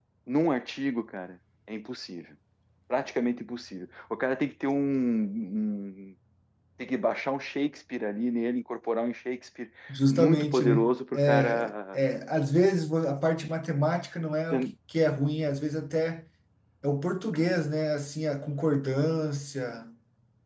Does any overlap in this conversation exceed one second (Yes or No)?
Yes